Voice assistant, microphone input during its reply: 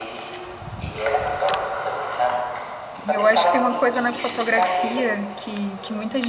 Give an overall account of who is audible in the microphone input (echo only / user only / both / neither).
both